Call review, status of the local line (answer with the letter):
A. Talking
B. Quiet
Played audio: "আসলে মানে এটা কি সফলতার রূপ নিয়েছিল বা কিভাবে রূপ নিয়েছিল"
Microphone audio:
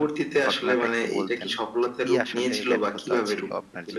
A